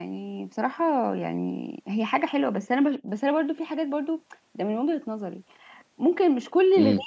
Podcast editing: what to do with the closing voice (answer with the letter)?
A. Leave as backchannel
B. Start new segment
A